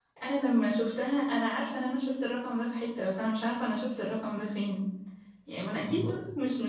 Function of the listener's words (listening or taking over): listening